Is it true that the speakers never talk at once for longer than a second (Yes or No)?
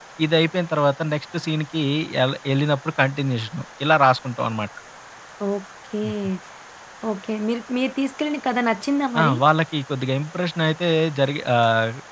Yes